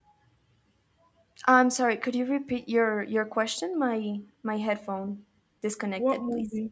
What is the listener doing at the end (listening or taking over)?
taking over